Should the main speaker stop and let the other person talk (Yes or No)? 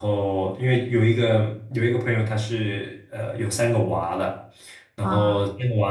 No